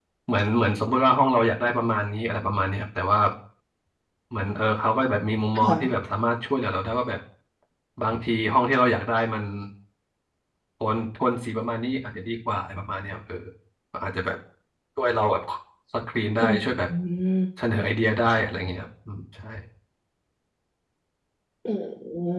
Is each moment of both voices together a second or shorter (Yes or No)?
Yes